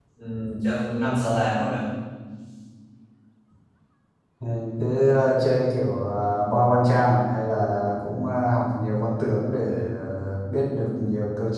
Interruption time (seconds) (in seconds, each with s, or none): none